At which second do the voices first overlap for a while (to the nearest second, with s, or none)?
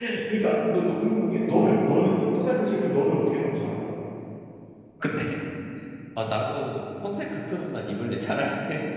none